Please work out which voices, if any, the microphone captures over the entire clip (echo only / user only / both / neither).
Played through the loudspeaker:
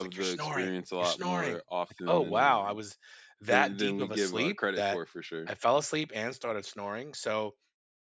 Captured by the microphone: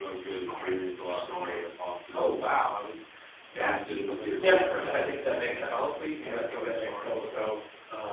both